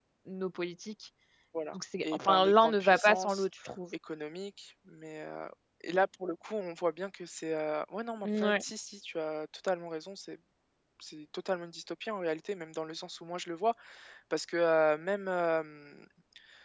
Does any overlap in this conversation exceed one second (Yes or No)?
Yes